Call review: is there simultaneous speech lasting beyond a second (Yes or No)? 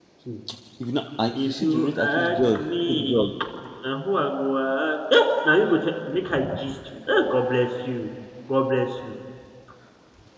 Yes